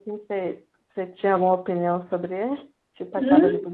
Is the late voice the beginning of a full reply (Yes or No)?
Yes